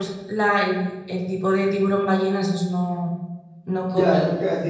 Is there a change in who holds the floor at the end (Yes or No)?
Yes